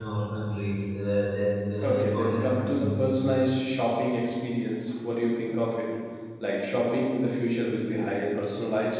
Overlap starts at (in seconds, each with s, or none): 1.8 s